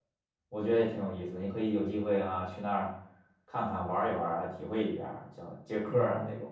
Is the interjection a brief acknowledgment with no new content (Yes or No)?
No